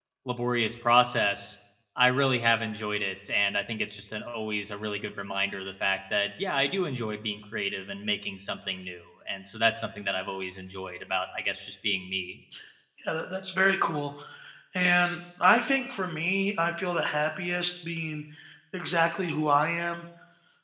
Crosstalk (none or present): none